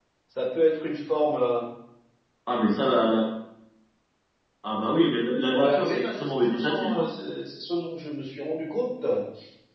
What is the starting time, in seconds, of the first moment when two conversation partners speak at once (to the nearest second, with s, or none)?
5 s